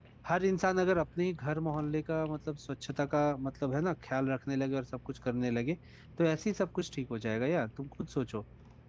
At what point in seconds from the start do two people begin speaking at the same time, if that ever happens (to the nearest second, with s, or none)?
none